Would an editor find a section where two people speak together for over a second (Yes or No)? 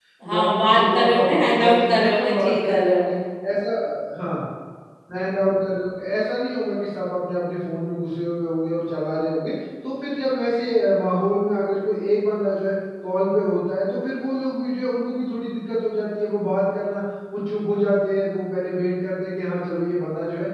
Yes